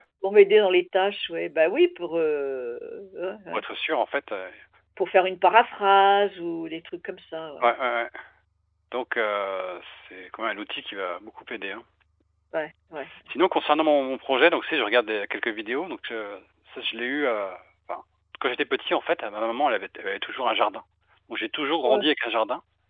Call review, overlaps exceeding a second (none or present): none